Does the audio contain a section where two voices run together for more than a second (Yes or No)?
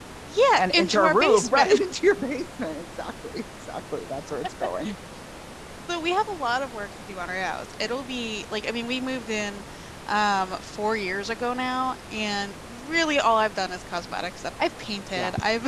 Yes